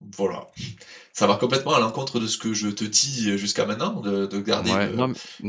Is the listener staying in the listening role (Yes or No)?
No